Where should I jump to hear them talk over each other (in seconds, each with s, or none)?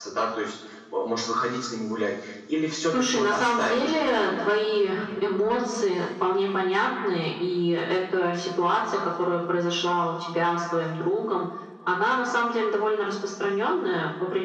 2.9 s